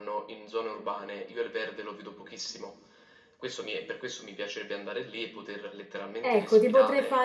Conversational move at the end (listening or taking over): taking over